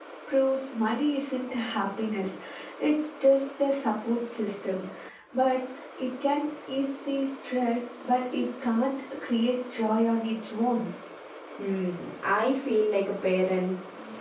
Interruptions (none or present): none